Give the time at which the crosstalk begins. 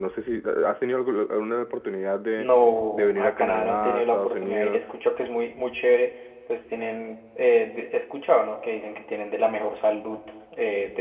2.9 s

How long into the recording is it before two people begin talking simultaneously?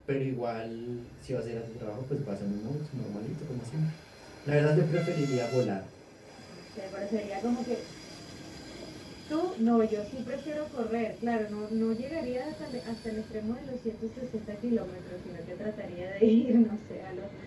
none

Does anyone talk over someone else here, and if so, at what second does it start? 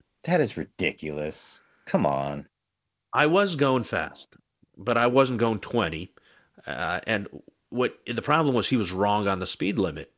none

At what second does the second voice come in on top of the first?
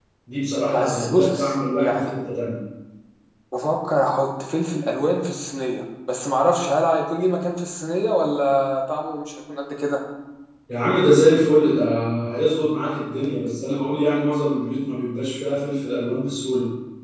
0.7 s

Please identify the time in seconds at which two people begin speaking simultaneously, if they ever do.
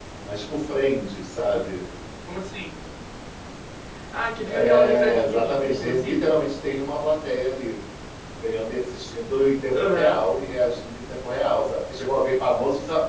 4.5 s

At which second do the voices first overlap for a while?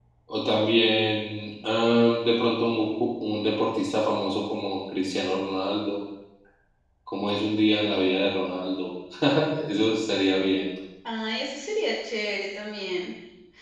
none

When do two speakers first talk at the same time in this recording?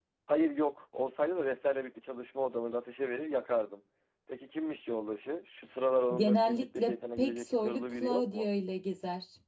6.1 s

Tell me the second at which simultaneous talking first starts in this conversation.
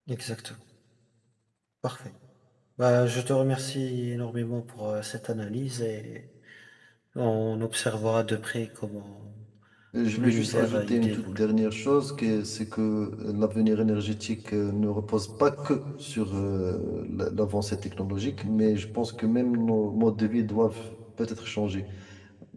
10.2 s

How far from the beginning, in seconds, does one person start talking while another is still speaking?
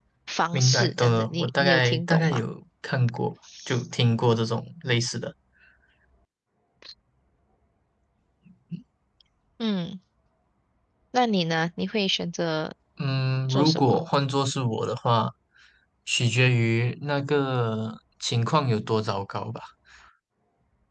0.5 s

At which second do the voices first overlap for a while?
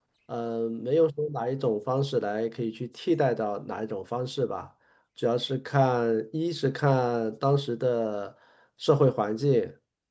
none

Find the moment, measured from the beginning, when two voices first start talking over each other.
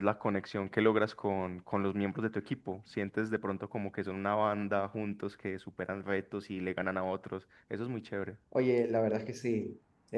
none

